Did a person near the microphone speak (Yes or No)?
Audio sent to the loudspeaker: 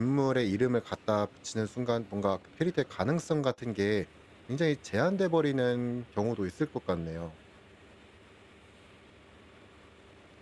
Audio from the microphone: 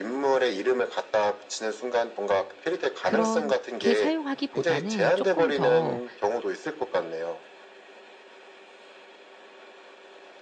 Yes